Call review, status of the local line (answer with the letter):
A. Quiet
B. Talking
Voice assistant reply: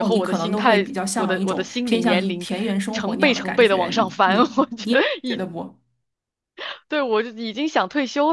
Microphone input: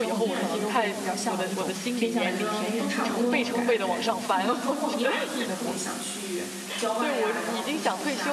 B